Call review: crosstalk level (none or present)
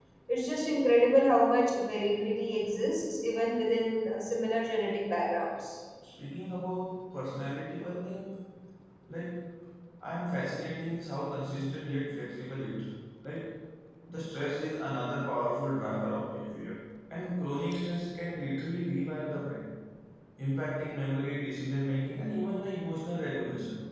none